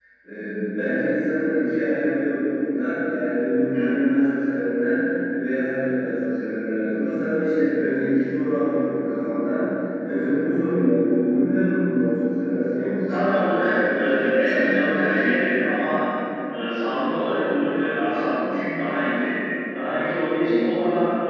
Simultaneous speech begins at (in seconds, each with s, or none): 13.1 s